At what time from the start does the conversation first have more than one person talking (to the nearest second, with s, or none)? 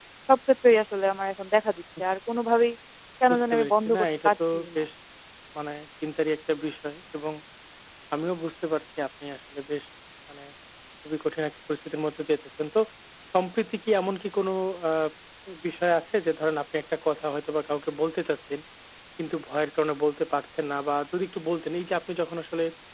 3 s